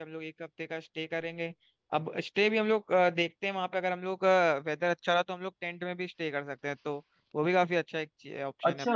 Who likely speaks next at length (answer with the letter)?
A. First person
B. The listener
B